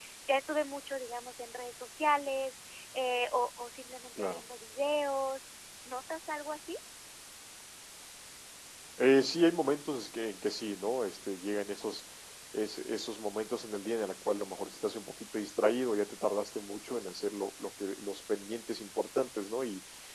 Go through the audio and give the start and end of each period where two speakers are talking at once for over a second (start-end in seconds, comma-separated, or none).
none